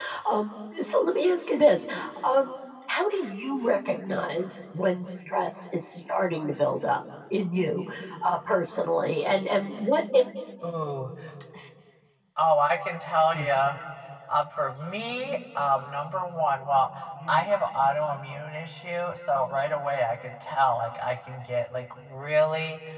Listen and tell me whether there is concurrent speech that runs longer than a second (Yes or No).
No